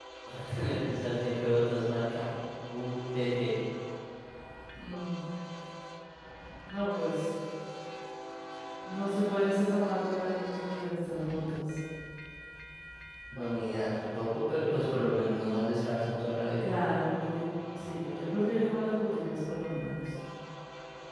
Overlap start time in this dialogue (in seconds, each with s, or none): none